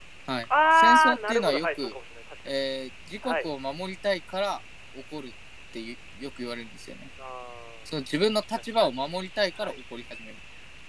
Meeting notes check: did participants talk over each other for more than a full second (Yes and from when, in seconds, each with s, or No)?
Yes, from 0.7 s